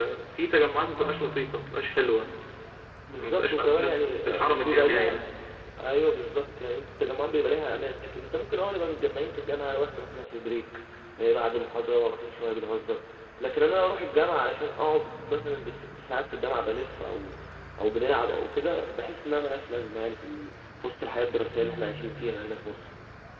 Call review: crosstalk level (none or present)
present